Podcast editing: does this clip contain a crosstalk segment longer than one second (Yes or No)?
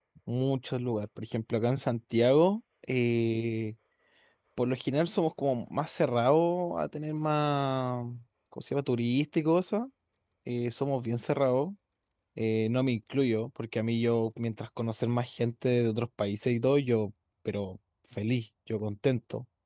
No